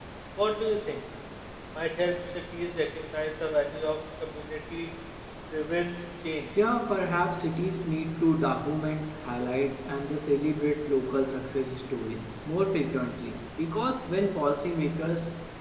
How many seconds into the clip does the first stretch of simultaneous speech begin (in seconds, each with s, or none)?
none